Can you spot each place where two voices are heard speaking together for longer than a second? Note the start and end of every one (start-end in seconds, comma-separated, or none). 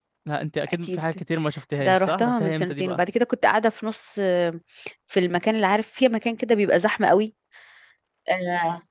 1.8-3.0